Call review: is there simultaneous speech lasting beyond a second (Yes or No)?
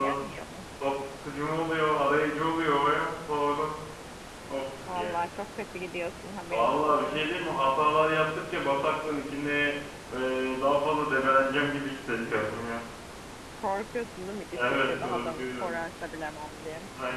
Yes